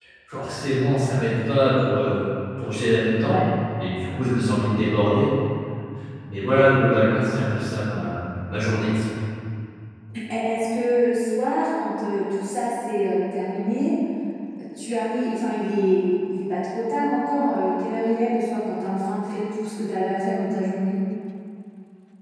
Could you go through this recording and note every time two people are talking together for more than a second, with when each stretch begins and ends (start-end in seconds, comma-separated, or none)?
none